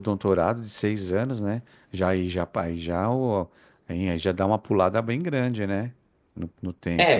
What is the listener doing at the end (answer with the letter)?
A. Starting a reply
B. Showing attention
A